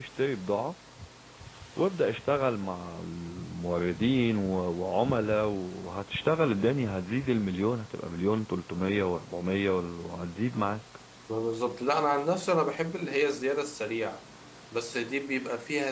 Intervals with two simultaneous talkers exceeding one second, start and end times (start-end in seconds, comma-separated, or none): none